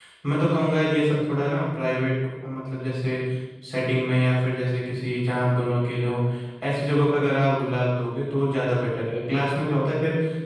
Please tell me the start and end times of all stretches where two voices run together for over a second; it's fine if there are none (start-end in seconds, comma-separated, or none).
none